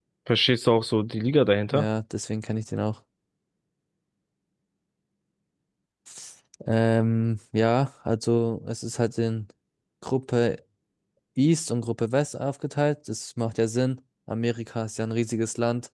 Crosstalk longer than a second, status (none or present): none